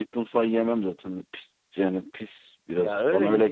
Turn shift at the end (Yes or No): Yes